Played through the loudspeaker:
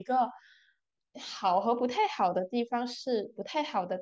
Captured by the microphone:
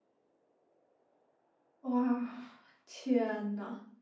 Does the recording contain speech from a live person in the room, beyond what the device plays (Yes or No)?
Yes